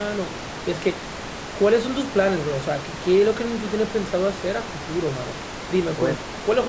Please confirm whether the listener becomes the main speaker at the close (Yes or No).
No